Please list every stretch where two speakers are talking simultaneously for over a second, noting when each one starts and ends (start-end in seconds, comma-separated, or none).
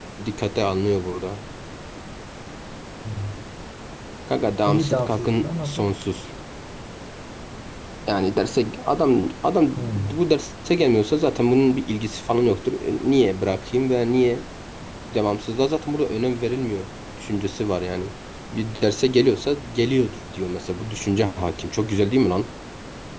4.6-5.9